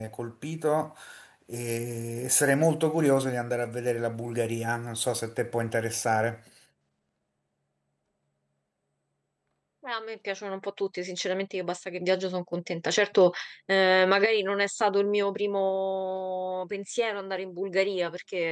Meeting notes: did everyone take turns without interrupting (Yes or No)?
Yes